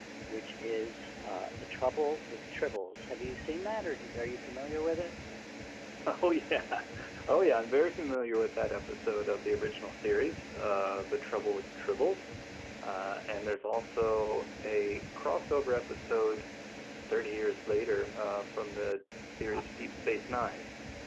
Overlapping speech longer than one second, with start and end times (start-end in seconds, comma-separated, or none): none